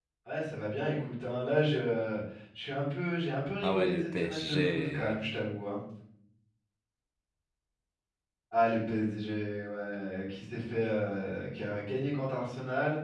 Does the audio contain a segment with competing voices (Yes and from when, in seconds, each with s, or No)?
Yes, from 3.6 s